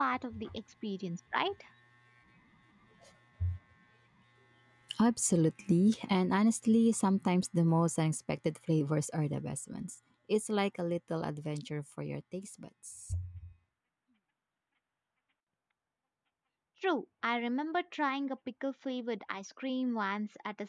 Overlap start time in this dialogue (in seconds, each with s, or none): none